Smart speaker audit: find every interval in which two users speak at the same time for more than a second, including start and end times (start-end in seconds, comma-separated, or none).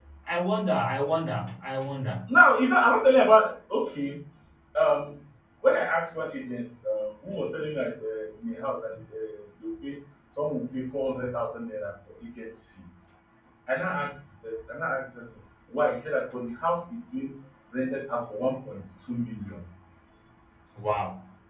none